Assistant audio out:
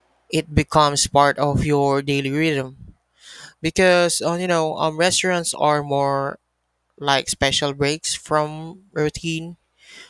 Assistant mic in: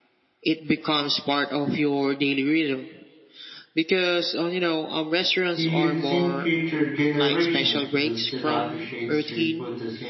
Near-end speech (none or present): present